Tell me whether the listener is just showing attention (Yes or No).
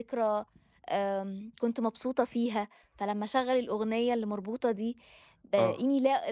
Yes